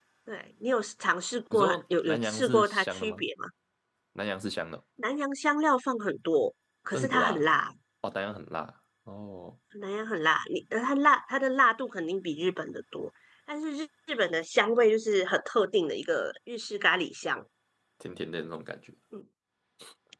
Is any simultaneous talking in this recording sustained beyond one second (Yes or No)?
Yes